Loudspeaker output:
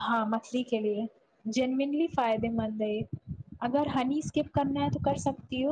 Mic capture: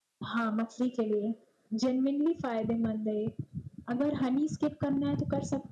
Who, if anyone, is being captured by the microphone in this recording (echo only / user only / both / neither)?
echo only